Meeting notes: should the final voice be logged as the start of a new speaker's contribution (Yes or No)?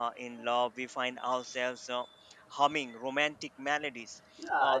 Yes